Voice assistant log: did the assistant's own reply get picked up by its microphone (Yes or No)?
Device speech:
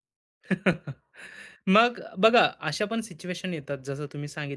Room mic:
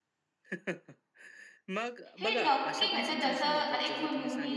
Yes